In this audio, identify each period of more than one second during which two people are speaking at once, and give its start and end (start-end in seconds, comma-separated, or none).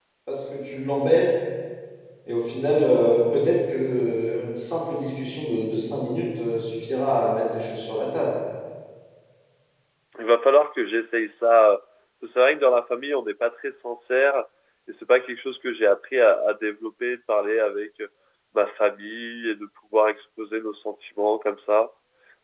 none